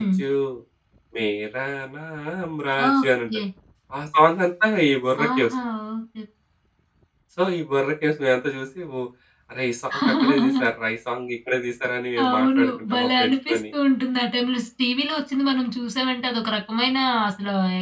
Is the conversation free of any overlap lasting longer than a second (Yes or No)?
No